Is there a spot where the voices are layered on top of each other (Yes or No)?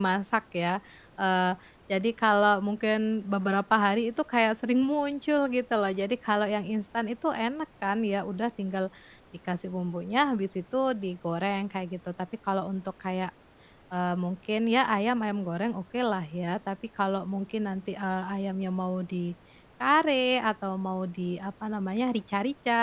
No